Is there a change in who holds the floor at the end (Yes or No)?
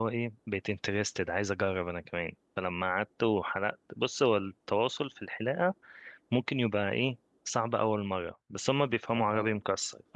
No